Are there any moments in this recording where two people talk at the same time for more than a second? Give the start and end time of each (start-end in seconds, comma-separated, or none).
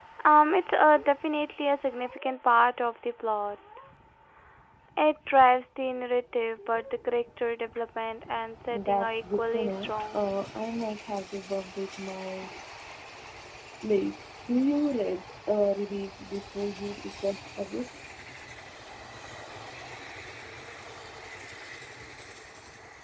8.7-10.2